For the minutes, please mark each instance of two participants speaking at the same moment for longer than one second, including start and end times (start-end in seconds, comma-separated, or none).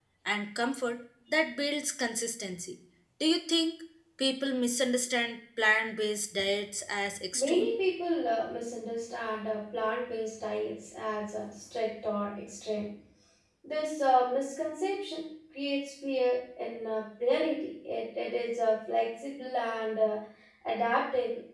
none